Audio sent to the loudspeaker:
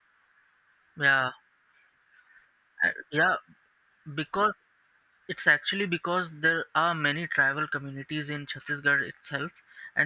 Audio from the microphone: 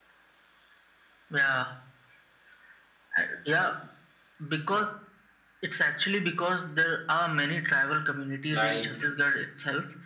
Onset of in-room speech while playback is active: 8.5 s

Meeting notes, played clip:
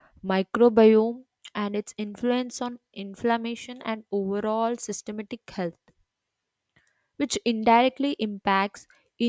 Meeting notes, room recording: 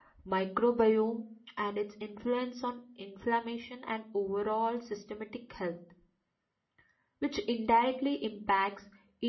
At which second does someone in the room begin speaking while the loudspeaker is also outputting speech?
none

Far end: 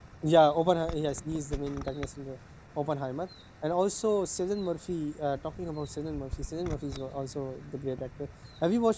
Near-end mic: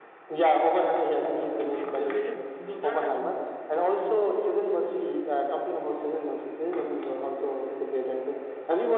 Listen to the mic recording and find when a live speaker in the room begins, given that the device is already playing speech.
1.8 s

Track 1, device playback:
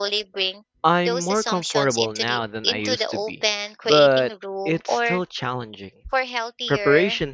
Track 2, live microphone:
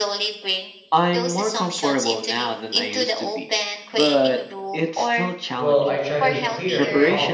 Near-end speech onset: 5.5 s

